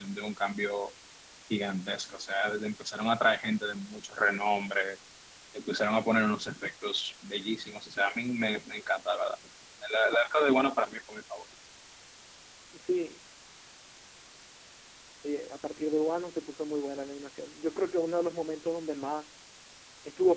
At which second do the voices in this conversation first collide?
none

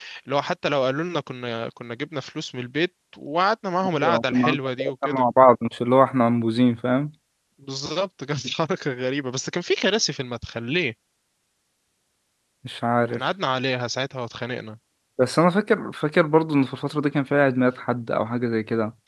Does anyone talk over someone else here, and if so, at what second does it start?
3.9 s

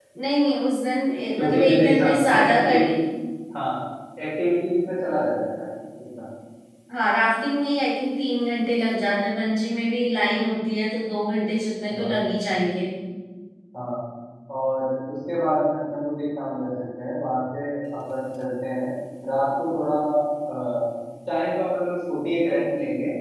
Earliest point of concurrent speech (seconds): 1.4 s

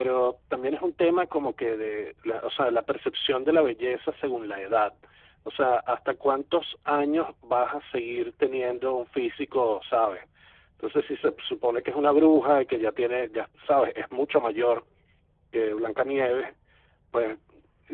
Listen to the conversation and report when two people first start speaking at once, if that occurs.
none

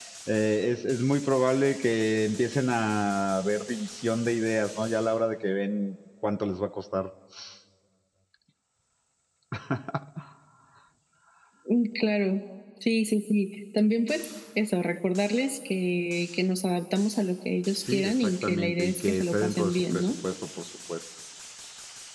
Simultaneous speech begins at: 17.9 s

